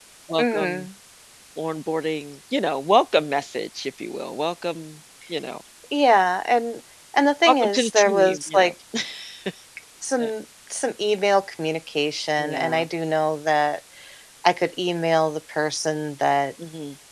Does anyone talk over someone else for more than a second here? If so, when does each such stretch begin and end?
7.5-8.7

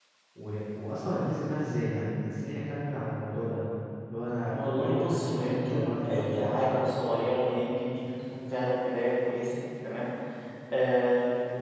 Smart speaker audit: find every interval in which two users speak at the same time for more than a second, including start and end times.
4.5-6.4

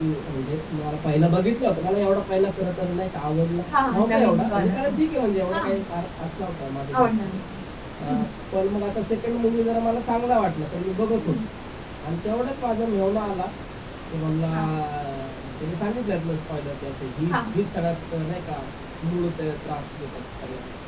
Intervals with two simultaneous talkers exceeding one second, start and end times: 3.7-5.0

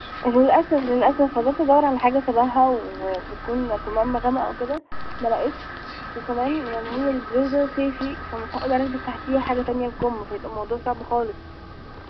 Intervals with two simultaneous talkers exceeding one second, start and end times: none

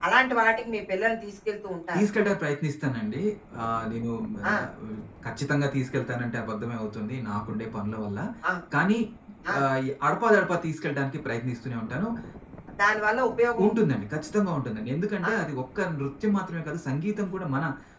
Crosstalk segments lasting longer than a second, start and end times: none

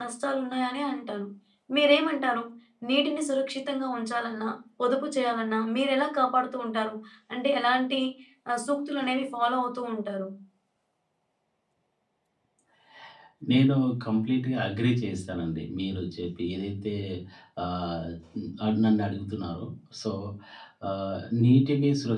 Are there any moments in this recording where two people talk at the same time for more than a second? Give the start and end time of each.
none

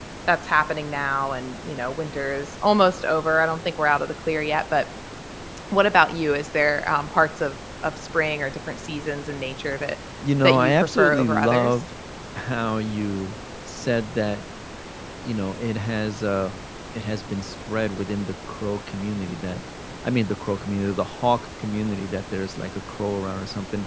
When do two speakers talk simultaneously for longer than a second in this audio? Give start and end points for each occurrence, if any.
10.4-11.7

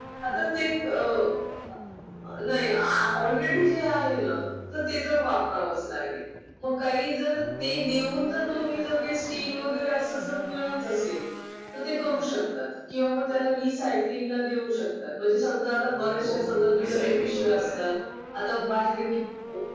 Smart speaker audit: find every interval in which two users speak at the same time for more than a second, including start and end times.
16.2-17.6

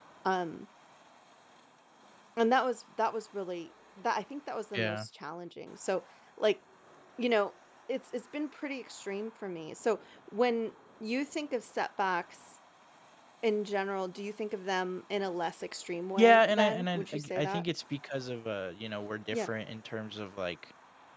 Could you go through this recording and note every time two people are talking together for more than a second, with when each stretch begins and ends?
16.1-17.6

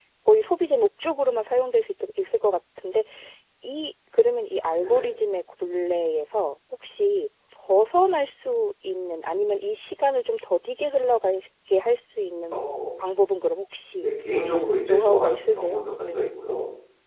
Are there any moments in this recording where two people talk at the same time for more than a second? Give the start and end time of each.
14.9-16.2

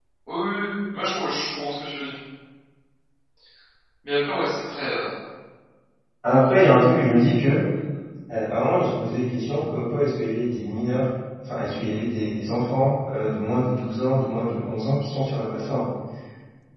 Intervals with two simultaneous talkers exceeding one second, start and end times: none

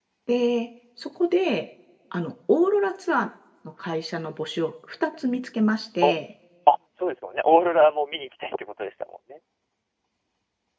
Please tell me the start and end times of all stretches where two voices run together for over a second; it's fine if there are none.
none

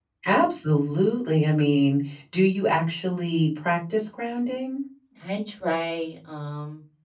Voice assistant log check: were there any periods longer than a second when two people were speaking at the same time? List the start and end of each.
none

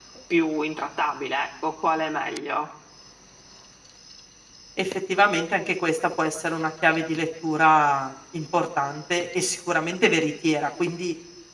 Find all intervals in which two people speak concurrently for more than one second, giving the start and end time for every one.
none

